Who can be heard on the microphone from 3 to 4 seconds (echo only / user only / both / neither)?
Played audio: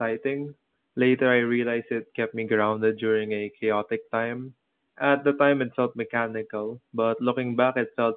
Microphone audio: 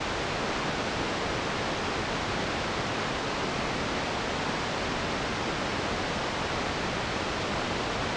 neither